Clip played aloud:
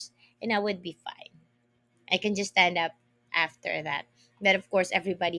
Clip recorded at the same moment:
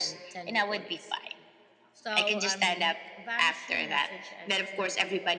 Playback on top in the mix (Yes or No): Yes